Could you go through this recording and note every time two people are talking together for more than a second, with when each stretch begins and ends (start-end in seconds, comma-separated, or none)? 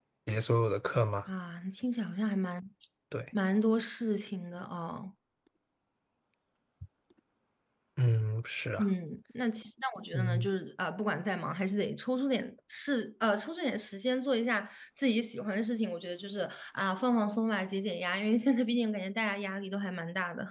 none